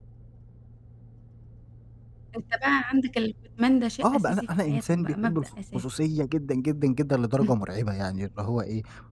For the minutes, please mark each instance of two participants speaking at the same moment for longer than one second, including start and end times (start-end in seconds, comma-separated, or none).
4.0-5.4